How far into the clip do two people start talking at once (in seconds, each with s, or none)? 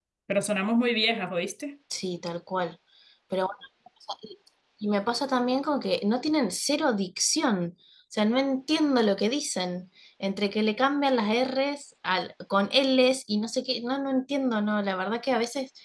none